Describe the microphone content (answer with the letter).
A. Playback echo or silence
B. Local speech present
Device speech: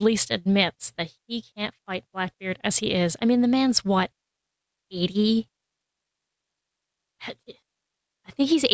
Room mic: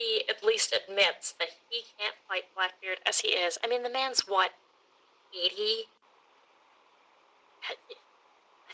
A